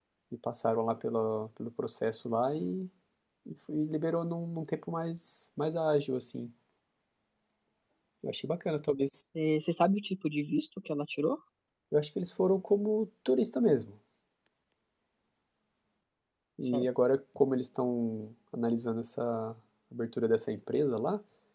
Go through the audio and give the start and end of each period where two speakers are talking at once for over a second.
none

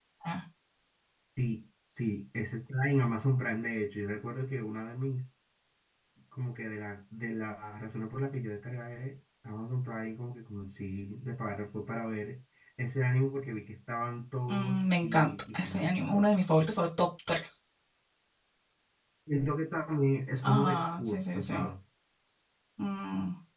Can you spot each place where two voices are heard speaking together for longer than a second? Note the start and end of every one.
14.5-16.3, 20.4-21.7

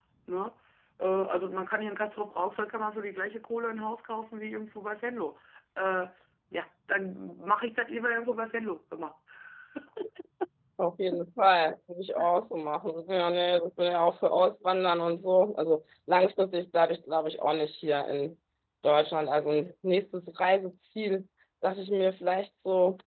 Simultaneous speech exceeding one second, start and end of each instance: none

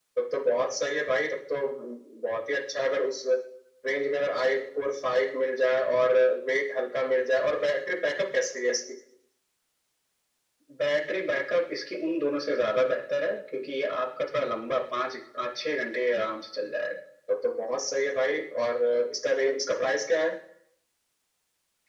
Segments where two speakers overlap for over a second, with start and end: none

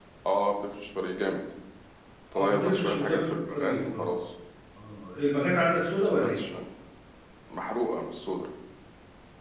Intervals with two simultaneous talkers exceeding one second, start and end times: 2.3-4.1

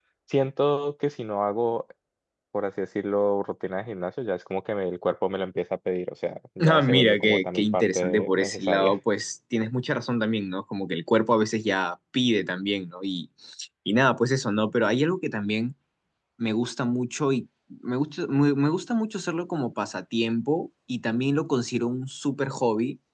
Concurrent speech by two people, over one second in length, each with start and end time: 6.7-9.0

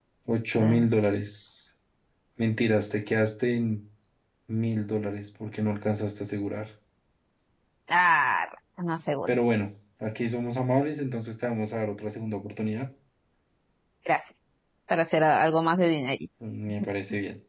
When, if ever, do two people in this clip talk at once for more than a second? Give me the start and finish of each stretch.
none

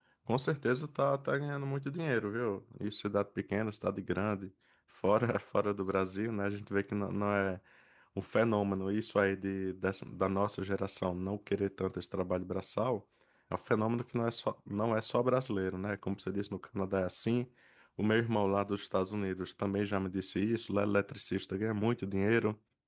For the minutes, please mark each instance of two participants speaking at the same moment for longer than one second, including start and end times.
none

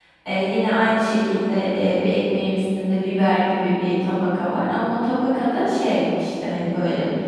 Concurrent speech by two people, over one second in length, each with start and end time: none

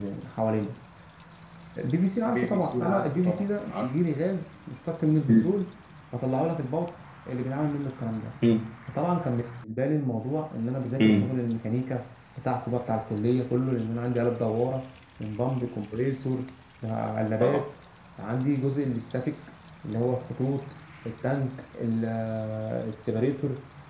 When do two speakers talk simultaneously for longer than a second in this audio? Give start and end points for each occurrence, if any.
2.3-3.9

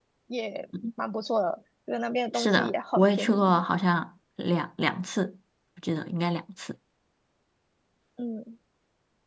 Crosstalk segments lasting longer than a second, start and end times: 2.3-3.6

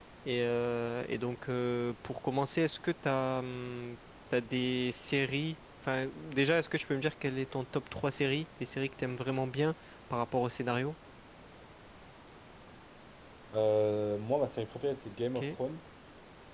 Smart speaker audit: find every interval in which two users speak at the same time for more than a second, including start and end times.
none

